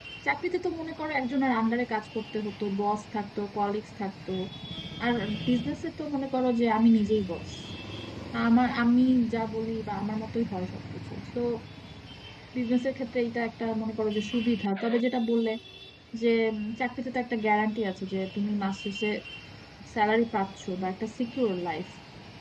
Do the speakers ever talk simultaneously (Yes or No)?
No